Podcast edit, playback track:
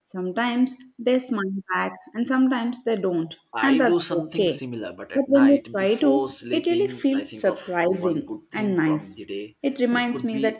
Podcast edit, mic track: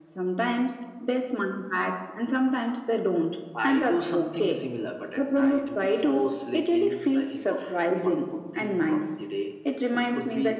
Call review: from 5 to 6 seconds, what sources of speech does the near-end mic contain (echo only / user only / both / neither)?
echo only